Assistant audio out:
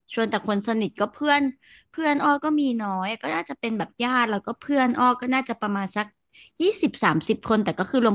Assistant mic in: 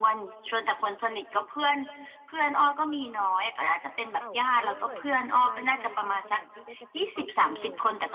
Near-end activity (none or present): present